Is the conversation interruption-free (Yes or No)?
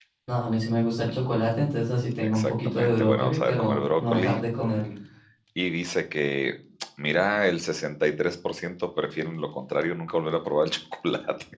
No